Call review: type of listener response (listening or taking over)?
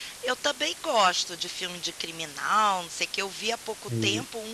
listening